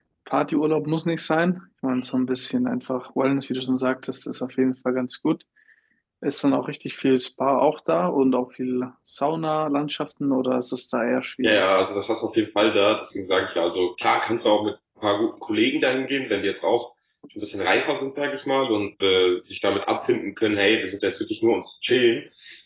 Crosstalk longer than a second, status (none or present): none